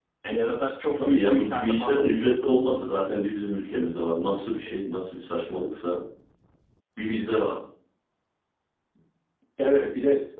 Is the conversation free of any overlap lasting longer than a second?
No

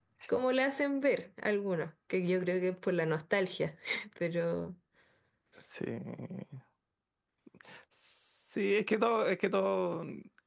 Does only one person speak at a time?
Yes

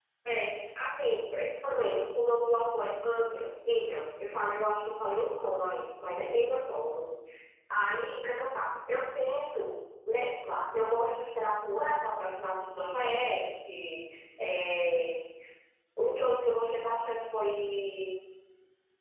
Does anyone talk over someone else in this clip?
No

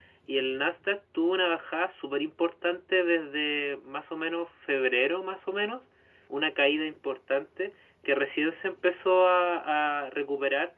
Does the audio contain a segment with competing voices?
No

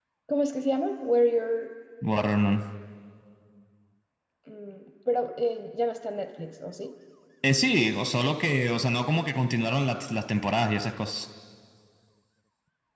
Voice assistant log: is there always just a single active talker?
Yes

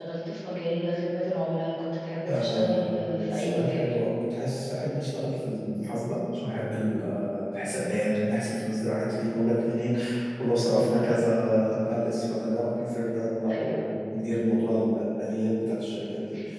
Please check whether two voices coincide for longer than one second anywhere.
Yes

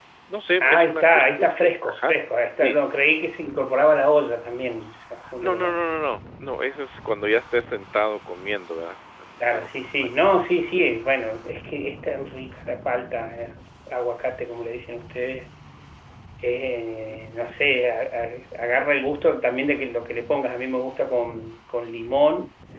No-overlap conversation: No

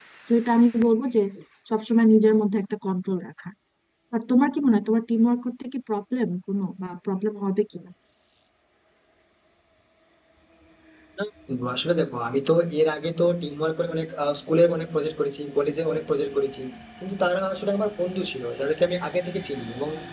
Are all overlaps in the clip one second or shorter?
Yes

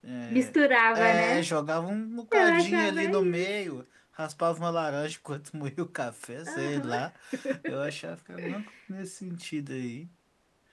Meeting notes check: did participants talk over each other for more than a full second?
Yes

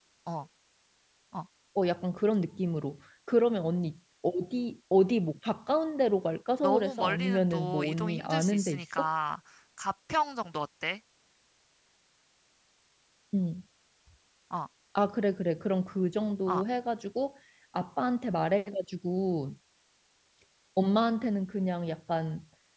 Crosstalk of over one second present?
Yes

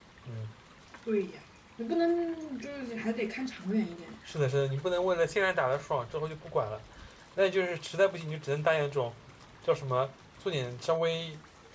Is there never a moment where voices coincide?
Yes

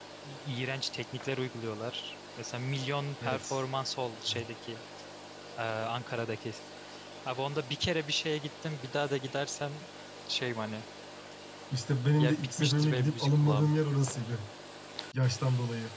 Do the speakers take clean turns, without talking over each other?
No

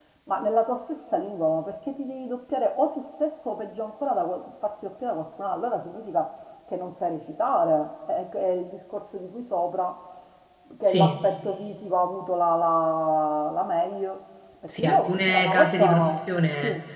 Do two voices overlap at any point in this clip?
Yes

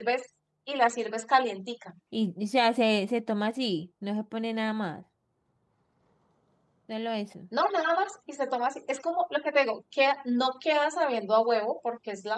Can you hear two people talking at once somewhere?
No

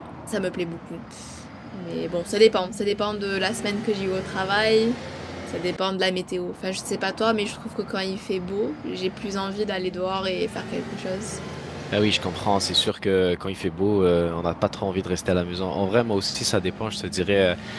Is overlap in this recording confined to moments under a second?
Yes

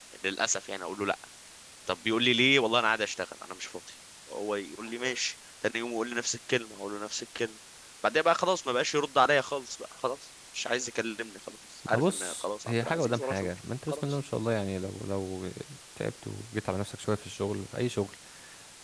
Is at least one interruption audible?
Yes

